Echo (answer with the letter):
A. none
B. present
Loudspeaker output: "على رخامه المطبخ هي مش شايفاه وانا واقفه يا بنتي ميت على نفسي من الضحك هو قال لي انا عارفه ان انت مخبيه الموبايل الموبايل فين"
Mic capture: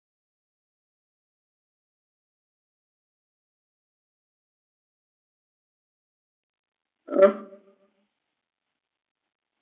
A